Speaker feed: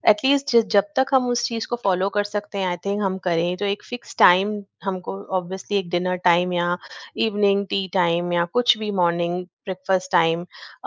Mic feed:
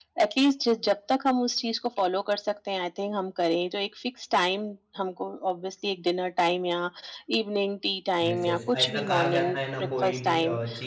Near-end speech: present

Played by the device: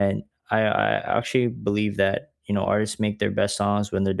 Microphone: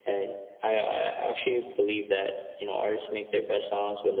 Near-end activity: none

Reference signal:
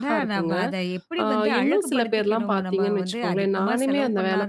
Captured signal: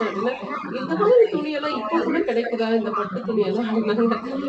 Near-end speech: present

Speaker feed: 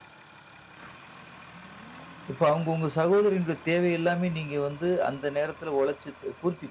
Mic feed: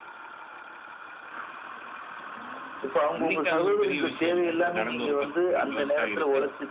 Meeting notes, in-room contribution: present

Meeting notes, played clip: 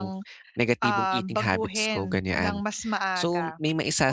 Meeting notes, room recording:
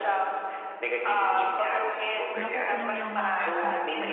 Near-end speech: present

